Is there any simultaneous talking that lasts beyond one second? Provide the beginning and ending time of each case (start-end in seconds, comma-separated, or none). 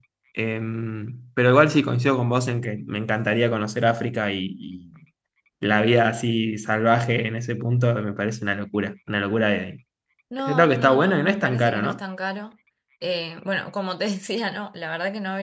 10.4-12.0